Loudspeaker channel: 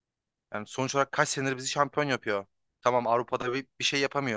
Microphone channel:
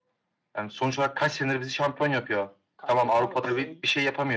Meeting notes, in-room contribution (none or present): present